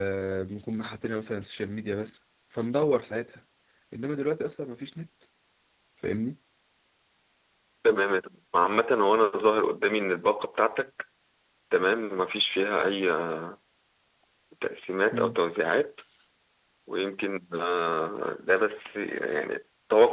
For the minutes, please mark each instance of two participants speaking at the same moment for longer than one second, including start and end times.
none

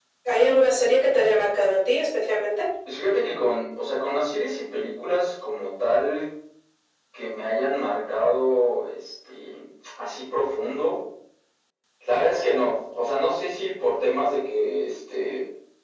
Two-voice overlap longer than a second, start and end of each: none

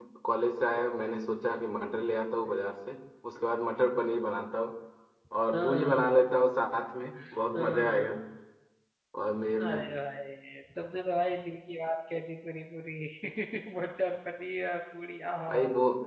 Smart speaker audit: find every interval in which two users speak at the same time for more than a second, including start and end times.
none

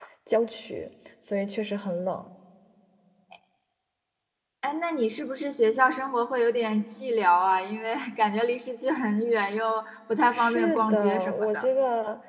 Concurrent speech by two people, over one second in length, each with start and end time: 10.3-11.7

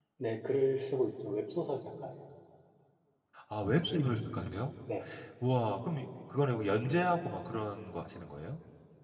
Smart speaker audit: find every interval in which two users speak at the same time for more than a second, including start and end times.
none

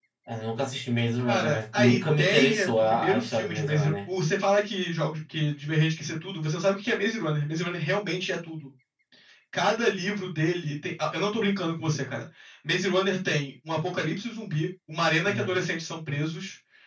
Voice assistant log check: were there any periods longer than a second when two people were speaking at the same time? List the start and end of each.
1.2-4.1

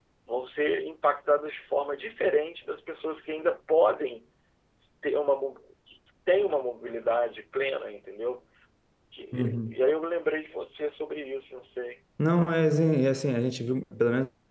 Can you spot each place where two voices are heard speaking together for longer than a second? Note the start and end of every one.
none

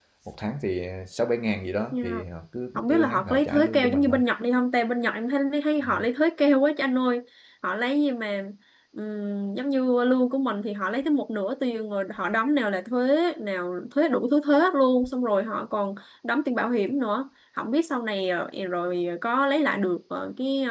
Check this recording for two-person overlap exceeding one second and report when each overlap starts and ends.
2.8-4.2

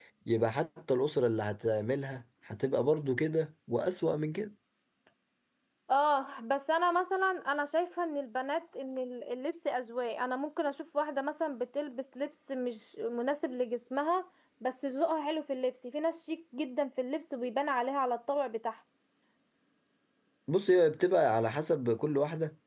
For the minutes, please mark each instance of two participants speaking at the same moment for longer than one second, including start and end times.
none

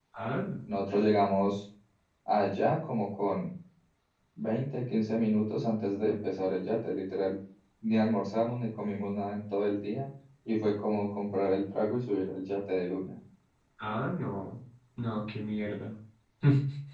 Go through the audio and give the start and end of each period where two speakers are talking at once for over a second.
none

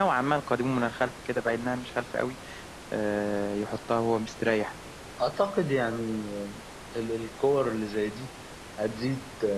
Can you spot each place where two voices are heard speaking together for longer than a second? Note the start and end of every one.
none

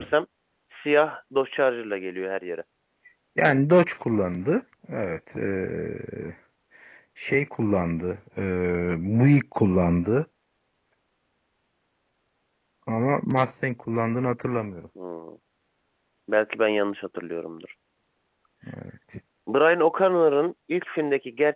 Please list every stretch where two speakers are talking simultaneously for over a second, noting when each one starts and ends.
none

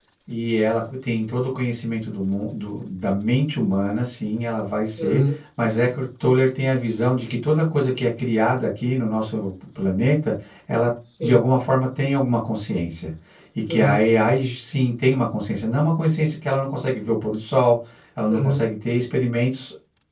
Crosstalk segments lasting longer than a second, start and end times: none

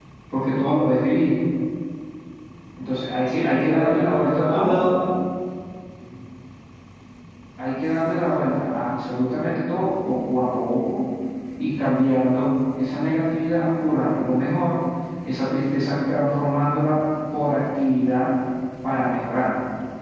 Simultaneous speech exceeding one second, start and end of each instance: 3.3-4.8

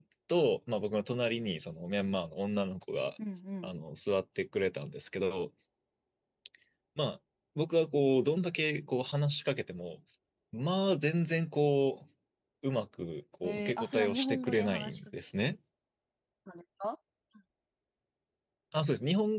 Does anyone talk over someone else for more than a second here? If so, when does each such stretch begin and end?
13.4-15.5

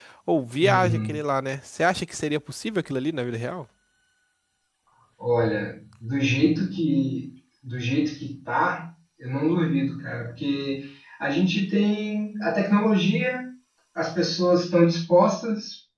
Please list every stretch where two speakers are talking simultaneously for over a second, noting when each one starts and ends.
none

